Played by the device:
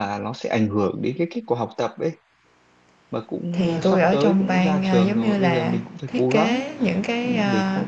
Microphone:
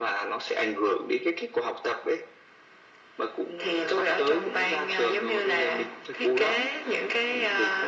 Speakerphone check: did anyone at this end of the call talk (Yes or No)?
No